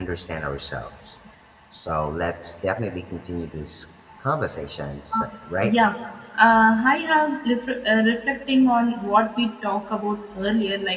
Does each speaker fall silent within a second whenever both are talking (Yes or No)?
Yes